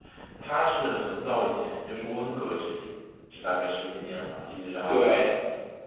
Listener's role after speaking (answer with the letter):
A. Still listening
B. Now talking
B